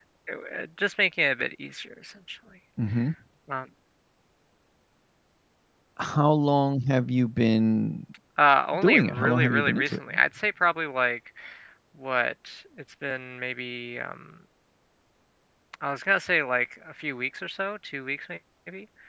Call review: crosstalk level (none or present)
present